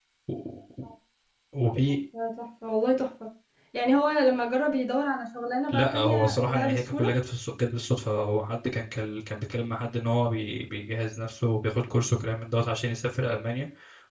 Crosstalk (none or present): present